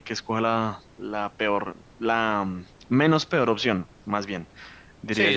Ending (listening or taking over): taking over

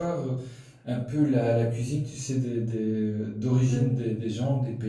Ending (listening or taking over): listening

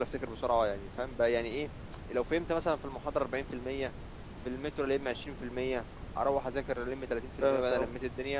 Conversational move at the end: listening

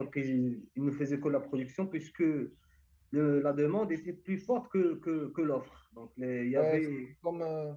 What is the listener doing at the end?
taking over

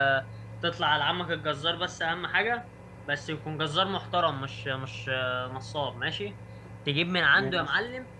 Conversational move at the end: listening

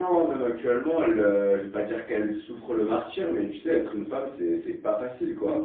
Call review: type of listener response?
taking over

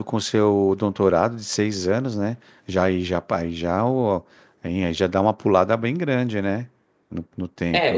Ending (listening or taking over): taking over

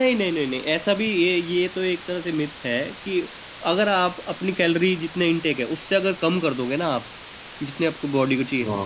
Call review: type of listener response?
listening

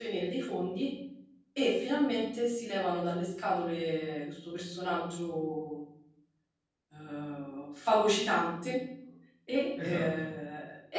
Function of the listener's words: listening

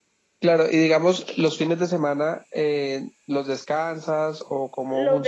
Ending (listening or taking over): taking over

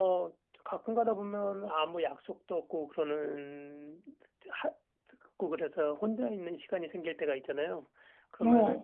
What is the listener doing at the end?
listening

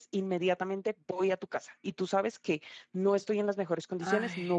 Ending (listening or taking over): listening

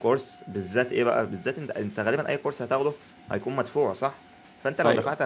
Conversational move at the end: listening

